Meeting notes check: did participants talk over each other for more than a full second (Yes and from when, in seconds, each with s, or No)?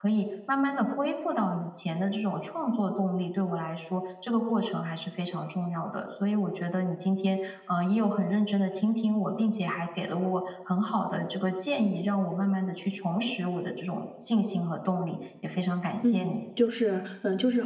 No